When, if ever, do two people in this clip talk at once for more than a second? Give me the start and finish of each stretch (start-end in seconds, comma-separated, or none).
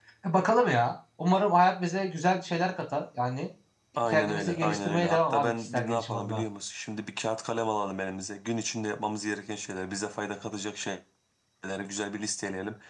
4.1-6.4